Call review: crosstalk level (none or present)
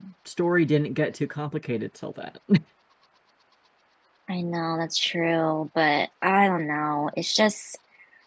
none